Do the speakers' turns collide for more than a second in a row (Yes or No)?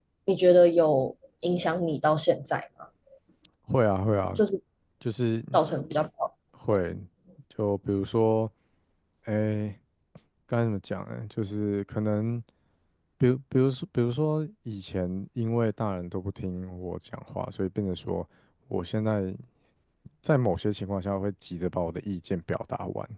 No